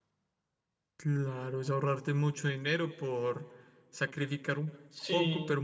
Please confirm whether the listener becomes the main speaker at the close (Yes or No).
No